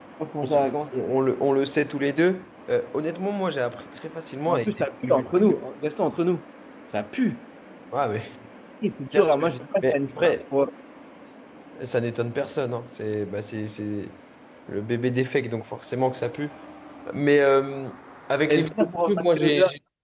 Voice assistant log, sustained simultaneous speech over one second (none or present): present